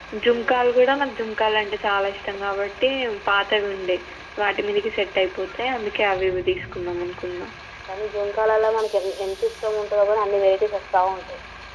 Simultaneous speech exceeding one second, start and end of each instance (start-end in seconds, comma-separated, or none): none